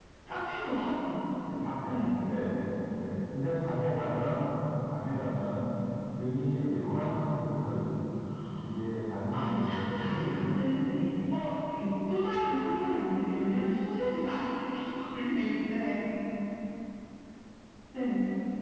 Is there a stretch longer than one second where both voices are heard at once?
Yes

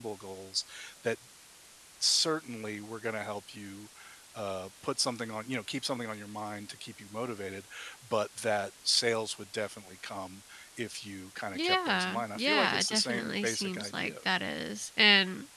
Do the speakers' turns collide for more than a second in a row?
Yes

